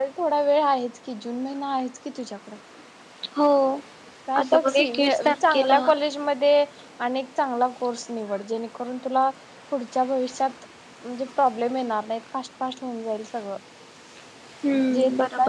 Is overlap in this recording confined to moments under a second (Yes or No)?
No